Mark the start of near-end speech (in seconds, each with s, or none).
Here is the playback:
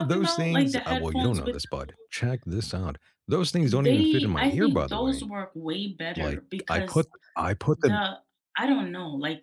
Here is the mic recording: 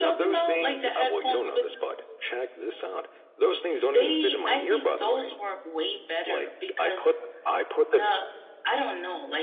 none